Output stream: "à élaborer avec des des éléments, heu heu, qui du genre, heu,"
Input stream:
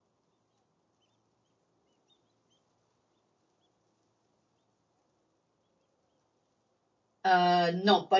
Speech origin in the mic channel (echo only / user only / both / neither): user only